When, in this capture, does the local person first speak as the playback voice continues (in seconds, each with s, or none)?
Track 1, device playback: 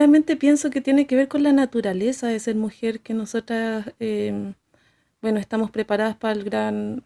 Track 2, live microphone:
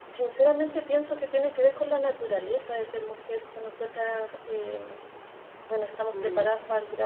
6.1 s